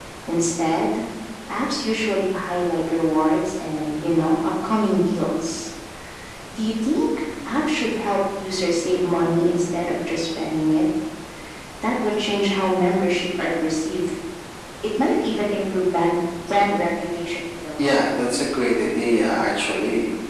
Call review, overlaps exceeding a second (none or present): none